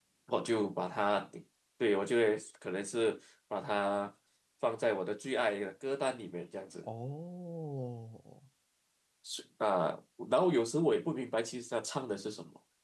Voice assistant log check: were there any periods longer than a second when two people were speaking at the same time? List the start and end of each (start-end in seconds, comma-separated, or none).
none